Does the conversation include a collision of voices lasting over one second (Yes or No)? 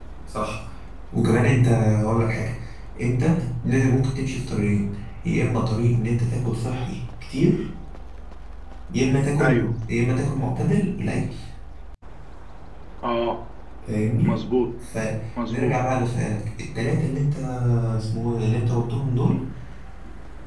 No